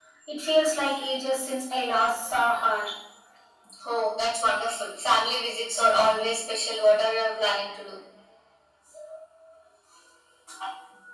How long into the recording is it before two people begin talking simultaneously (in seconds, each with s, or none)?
none